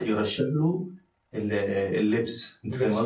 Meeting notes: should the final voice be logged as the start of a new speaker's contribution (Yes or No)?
Yes